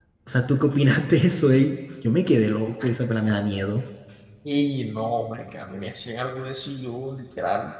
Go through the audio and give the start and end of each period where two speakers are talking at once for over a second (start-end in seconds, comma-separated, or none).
none